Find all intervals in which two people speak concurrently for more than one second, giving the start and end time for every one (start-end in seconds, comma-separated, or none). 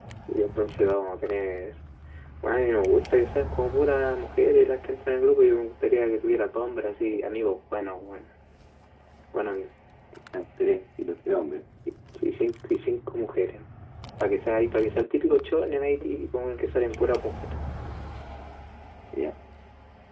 none